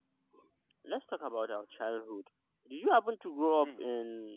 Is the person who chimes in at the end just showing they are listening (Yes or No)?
Yes